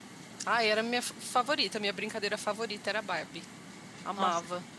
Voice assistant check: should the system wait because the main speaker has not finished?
No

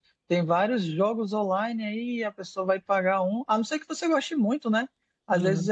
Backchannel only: Yes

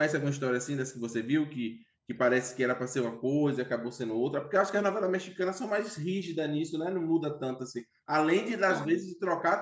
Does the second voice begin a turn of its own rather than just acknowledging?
No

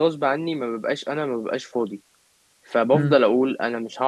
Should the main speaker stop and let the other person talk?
No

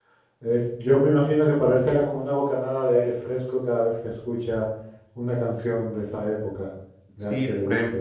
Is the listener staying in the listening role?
No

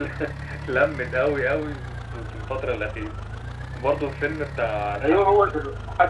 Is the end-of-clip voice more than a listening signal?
Yes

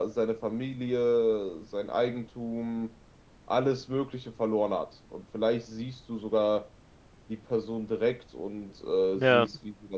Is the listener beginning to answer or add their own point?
No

